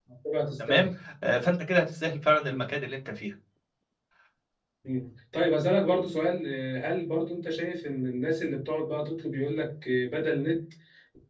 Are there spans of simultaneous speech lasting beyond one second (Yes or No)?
No